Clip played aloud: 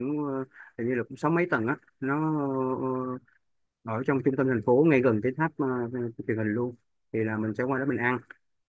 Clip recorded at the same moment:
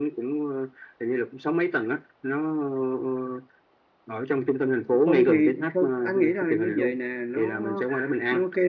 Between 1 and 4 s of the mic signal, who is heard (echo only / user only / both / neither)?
echo only